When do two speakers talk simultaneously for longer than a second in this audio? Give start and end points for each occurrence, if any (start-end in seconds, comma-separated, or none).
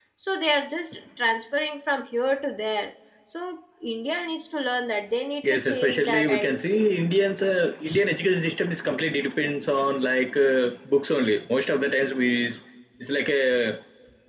5.4-6.8